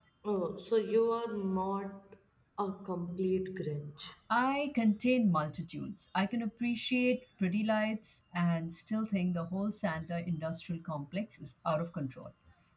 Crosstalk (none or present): none